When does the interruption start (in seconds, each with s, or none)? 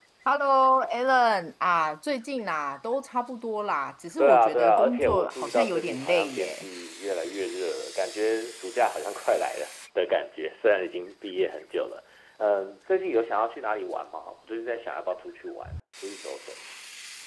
4.2 s